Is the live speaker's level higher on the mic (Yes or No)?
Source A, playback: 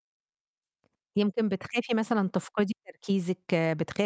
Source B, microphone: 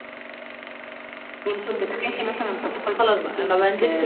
Yes